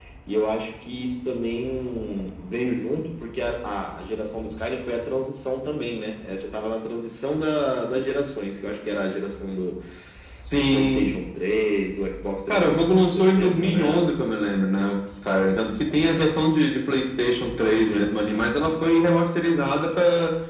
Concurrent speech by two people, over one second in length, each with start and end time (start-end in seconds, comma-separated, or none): 12.5-14.2